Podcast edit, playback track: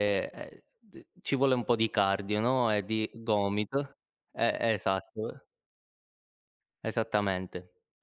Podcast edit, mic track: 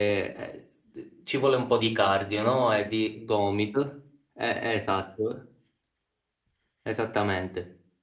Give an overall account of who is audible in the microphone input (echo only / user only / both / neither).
echo only